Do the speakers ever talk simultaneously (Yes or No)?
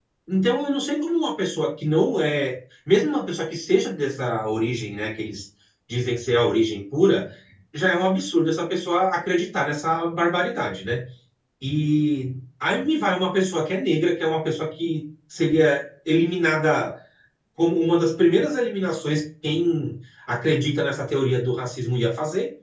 No